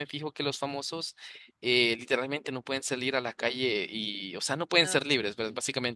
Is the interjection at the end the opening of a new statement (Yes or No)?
No